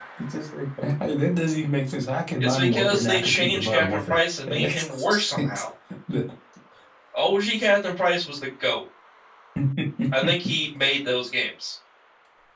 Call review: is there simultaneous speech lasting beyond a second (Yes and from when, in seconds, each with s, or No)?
Yes, from 2.4 s